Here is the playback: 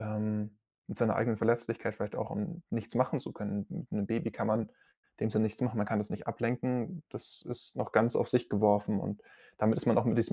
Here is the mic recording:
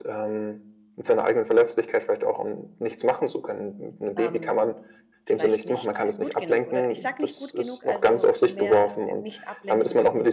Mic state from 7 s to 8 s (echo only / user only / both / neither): both